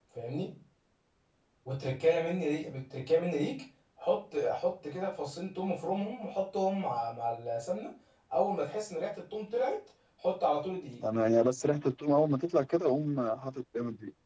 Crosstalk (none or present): none